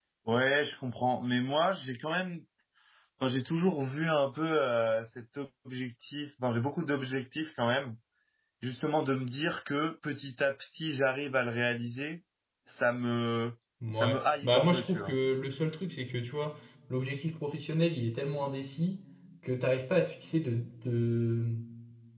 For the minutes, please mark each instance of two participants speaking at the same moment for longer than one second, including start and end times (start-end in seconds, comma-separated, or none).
13.9-15.2